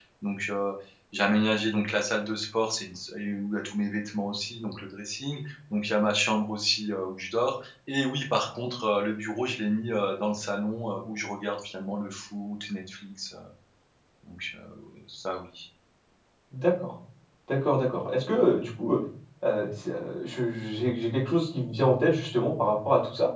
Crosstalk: none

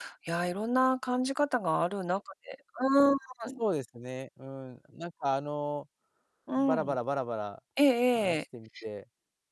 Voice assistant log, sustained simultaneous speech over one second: none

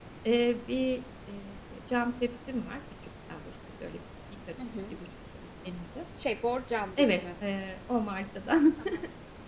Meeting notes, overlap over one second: none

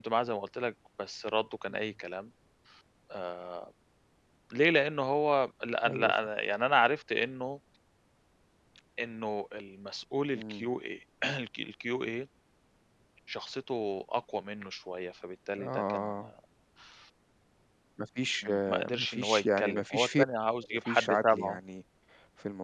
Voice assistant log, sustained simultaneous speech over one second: present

